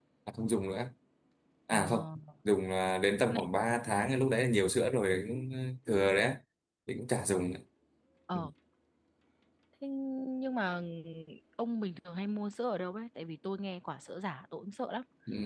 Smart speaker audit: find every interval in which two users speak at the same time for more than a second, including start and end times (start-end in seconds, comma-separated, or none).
none